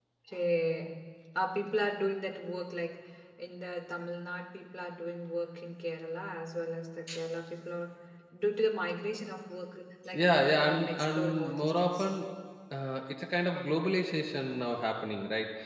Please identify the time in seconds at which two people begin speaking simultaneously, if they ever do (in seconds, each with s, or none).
10.1 s